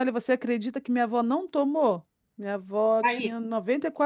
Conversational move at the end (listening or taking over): listening